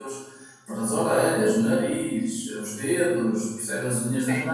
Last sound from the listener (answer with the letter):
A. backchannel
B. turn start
A